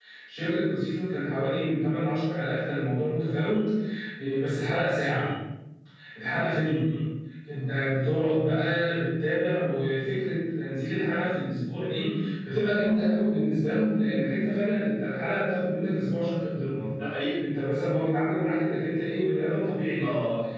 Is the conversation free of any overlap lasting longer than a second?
Yes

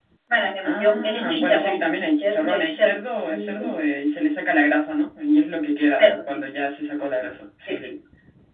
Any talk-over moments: Yes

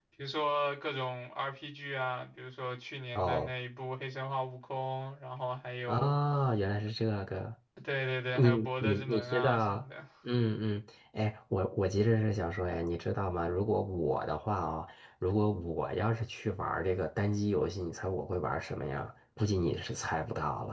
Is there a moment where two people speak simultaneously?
Yes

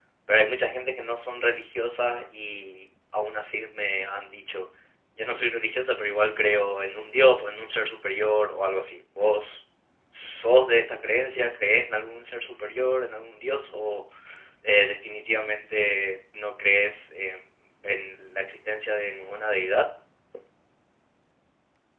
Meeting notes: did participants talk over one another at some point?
No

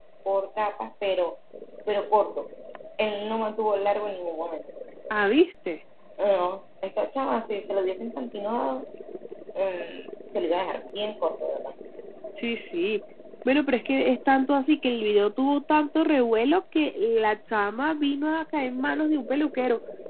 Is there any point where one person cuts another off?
No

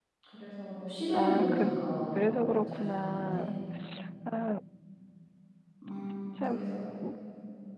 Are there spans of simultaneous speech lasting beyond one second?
Yes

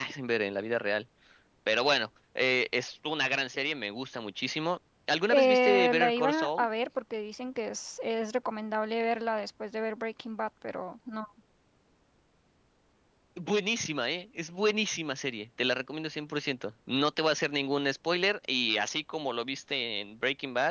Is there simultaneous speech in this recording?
Yes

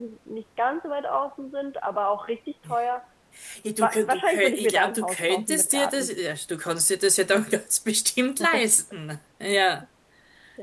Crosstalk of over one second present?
Yes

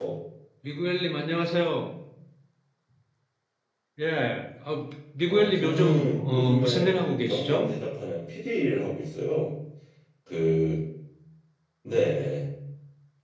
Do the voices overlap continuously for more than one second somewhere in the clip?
Yes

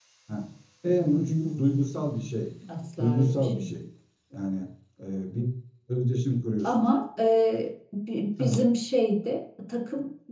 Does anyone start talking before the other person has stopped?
Yes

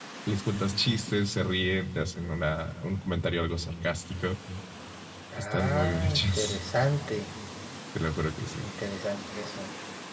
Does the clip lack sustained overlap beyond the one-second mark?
No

